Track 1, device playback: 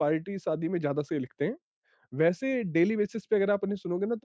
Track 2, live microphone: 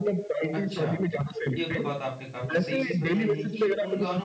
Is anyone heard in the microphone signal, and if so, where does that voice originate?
both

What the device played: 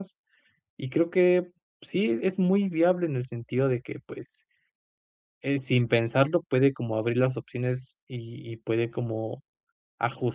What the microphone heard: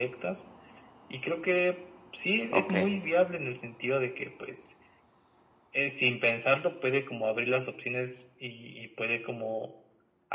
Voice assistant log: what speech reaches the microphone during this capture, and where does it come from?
both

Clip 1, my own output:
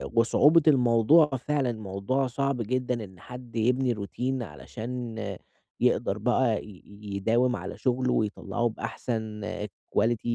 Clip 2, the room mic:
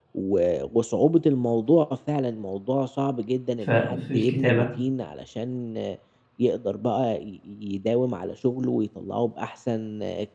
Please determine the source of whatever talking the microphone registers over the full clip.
both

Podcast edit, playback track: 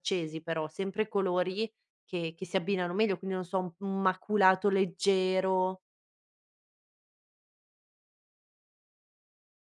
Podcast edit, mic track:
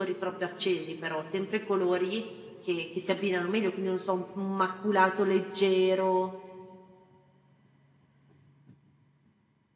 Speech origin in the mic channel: echo only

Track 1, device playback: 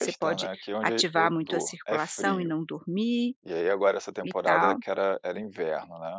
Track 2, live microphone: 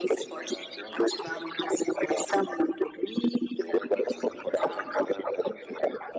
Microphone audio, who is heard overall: echo only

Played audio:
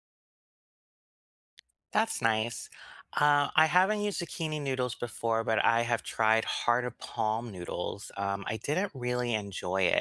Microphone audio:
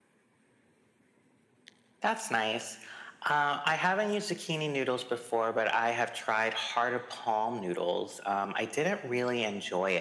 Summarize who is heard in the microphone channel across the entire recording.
echo only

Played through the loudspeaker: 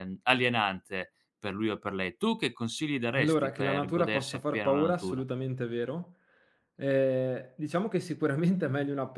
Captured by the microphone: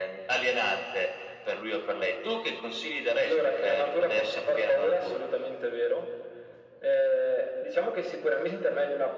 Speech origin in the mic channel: echo only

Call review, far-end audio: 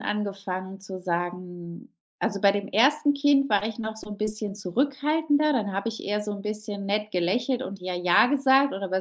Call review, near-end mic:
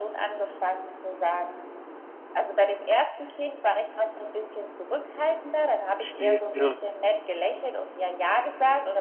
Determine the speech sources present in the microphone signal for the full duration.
both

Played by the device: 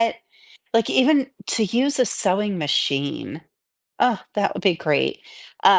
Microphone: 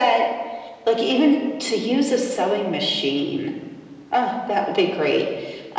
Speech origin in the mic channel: echo only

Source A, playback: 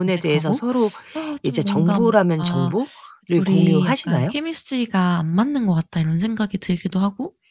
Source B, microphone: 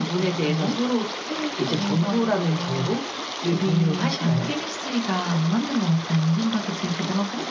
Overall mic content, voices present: echo only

